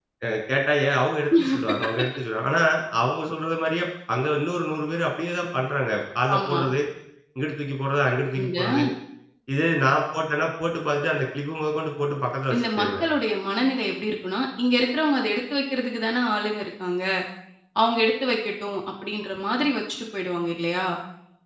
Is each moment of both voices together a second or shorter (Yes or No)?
Yes